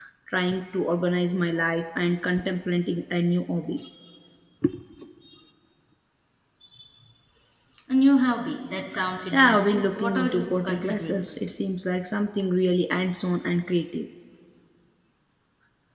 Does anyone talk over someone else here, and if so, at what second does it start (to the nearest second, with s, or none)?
9 s